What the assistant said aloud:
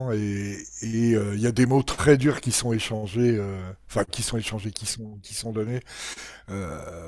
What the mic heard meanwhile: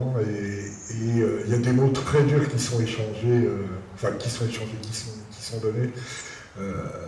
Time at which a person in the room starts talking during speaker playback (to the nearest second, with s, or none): none